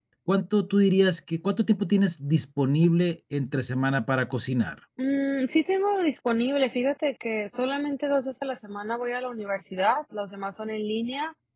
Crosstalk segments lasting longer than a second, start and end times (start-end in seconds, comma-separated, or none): none